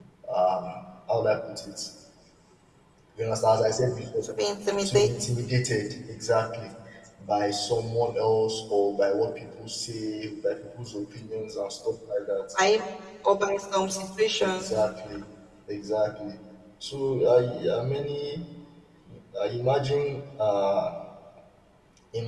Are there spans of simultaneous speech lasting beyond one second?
No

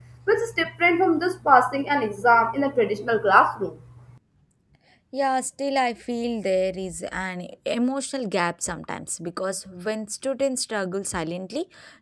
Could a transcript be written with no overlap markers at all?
Yes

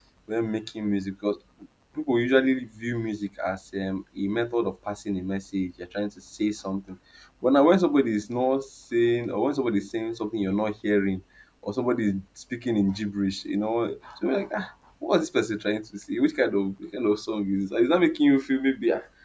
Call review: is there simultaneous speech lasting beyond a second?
No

